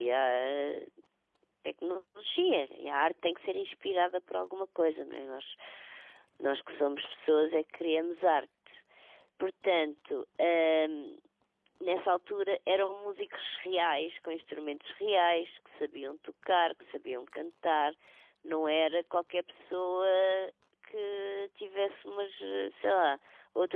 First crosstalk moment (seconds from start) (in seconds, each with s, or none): none